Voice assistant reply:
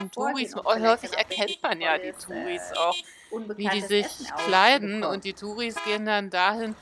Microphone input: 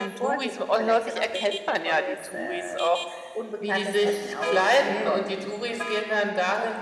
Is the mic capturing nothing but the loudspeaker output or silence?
Yes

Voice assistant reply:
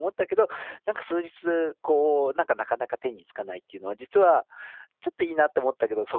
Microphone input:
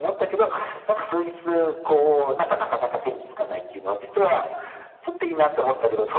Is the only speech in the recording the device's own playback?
Yes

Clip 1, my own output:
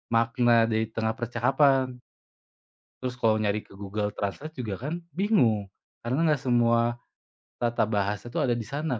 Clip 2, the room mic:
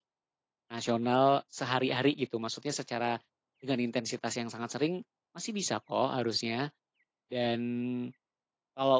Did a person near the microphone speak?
Yes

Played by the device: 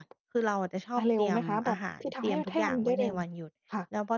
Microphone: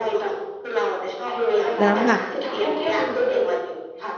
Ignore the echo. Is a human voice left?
Yes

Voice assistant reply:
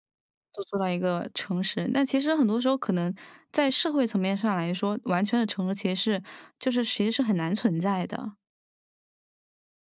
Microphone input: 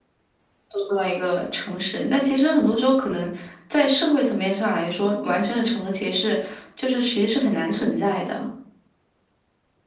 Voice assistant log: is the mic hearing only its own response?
Yes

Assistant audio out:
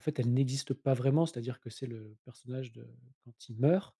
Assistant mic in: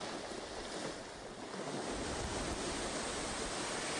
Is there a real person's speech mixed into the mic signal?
No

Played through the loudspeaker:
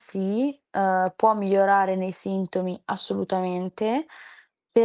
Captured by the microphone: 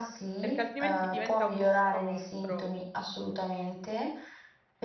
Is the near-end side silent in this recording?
No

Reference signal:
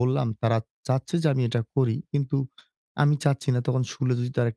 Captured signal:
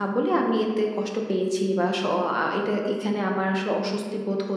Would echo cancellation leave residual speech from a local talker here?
Yes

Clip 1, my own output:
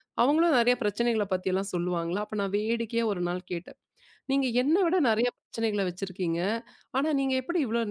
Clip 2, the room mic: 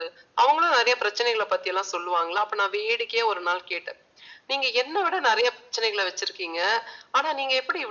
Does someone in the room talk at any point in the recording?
No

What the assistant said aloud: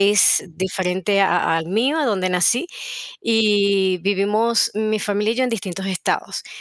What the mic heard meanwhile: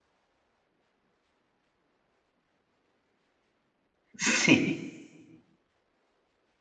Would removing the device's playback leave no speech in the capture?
No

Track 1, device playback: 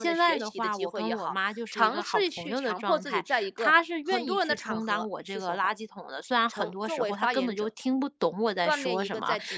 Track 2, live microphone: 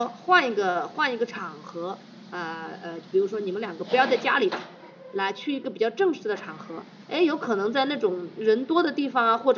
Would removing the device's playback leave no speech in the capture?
No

